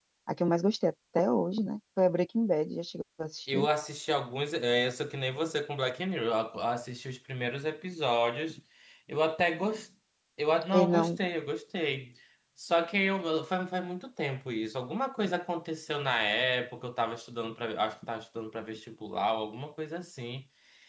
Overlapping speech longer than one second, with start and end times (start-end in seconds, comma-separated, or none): none